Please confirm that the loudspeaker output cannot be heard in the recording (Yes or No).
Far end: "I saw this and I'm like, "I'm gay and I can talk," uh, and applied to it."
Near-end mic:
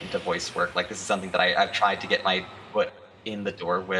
Yes